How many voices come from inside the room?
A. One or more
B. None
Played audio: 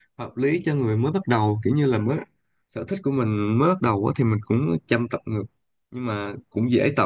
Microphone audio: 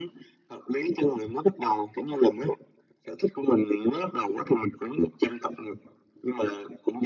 B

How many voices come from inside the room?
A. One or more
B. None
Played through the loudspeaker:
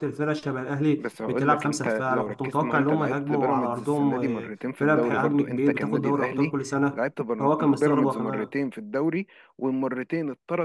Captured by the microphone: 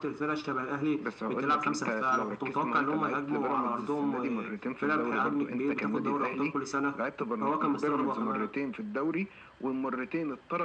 B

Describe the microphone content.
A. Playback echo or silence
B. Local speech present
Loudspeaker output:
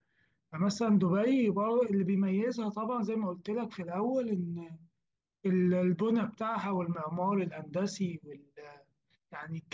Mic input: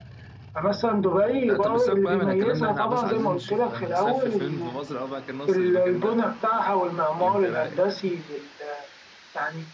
B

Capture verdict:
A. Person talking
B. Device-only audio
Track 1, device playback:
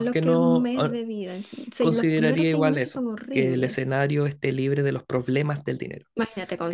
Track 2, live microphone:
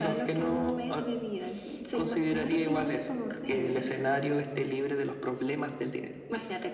B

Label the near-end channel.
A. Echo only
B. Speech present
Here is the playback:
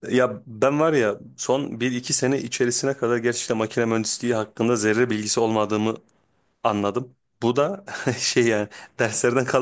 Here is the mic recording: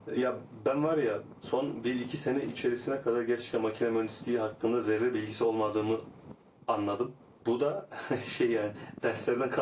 A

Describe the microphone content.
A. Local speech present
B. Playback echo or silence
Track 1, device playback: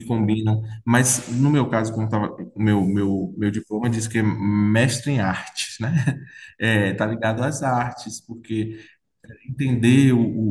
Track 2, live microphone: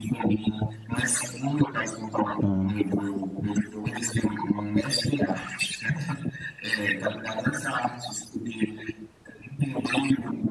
A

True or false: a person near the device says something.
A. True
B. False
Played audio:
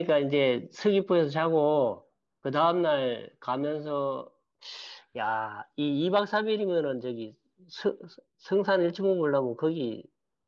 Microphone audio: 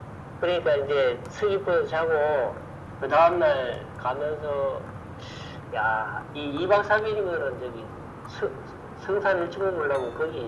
B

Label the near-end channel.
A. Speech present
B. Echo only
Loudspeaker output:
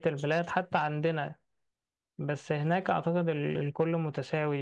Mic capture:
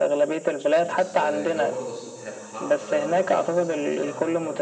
A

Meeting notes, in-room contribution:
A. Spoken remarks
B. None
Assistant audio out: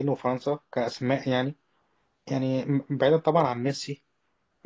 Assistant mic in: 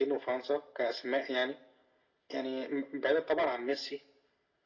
B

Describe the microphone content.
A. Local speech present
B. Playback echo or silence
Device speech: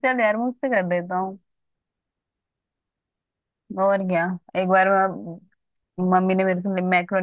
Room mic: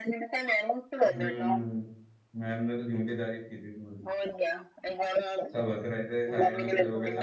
A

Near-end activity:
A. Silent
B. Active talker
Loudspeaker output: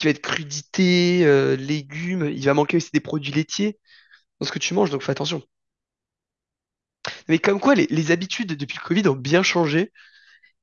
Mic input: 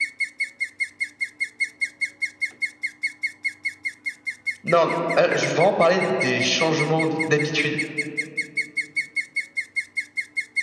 B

